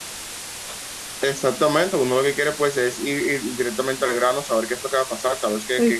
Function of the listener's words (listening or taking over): listening